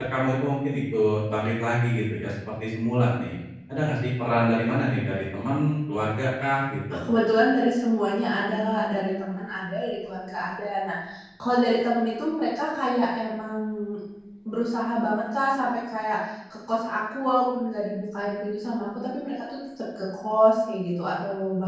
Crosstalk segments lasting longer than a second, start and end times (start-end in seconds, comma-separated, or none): none